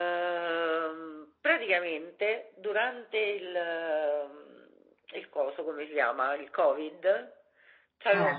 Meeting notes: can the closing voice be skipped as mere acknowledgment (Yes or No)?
Yes